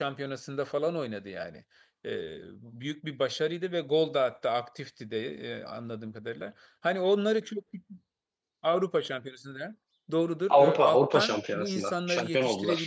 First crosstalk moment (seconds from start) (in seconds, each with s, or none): 10.5 s